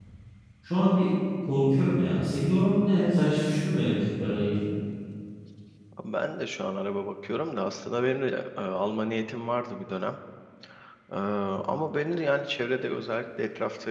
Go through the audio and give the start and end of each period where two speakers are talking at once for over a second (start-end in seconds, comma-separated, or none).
none